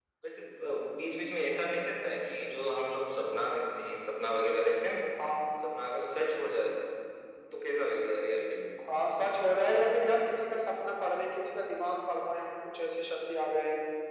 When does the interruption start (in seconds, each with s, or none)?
none